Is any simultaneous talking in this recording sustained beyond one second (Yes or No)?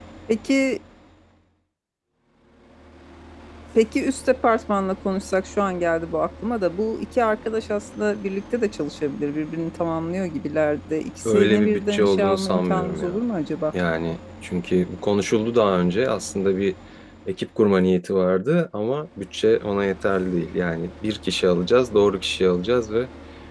Yes